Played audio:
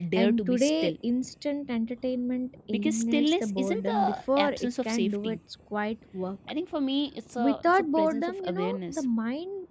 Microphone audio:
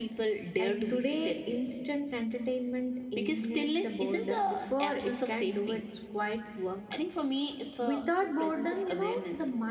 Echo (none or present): present